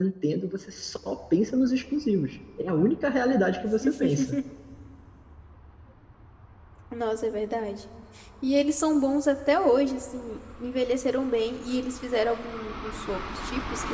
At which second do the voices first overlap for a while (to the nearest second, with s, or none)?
none